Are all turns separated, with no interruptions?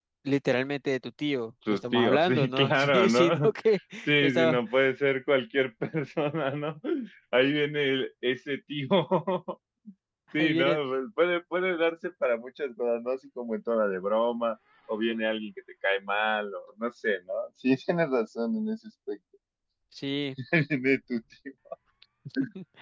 No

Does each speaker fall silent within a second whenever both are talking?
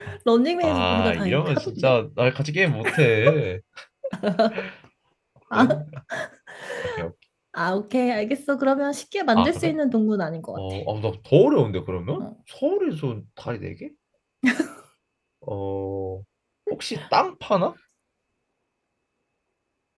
No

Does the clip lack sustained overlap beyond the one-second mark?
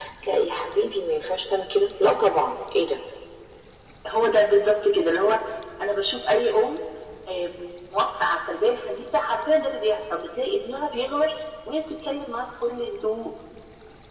Yes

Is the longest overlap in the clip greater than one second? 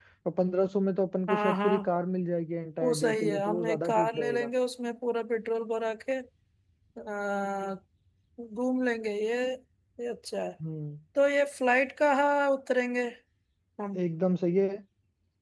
Yes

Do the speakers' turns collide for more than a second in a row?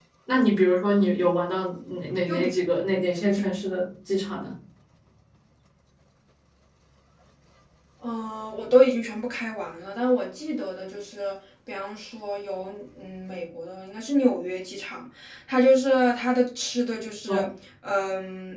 No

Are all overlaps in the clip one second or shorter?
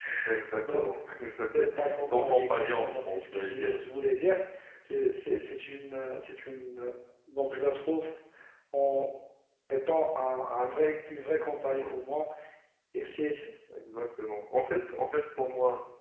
No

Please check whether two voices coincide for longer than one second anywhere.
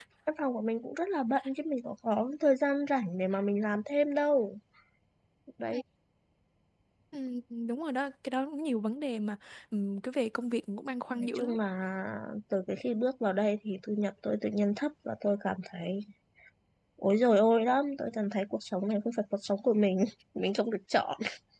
No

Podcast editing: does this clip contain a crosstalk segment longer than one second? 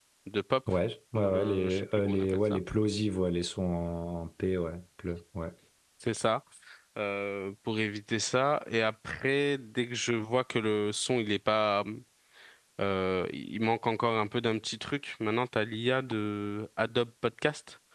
Yes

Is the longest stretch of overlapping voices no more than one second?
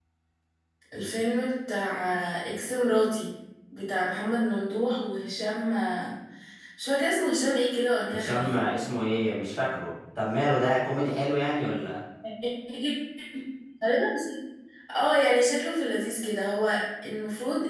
Yes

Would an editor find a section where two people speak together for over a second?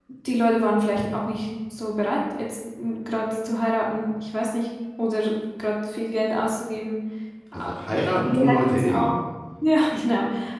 Yes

